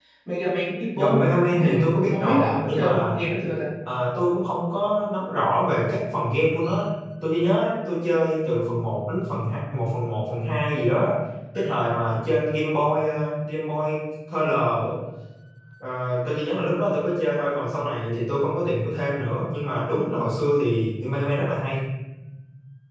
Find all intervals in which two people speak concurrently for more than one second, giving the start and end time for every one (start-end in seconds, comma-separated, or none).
0.9-3.2